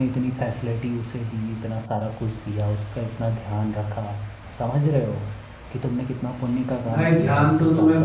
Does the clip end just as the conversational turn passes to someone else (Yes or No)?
Yes